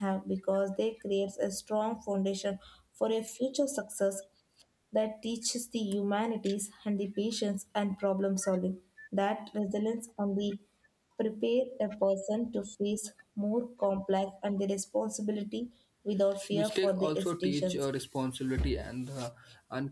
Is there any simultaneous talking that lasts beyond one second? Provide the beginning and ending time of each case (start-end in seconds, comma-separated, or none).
16.5-17.9